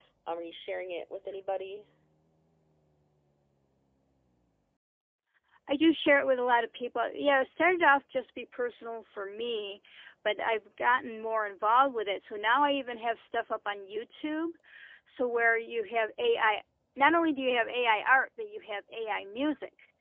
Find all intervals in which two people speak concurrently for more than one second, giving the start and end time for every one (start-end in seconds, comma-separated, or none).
none